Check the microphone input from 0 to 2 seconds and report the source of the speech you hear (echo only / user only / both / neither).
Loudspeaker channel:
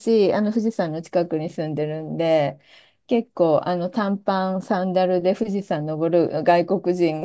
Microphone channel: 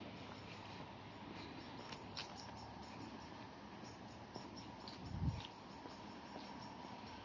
neither